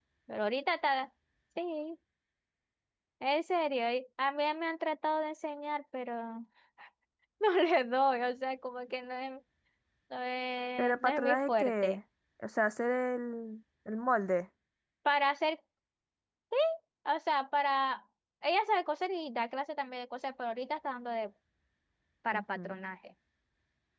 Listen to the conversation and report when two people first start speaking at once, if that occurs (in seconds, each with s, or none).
10.8 s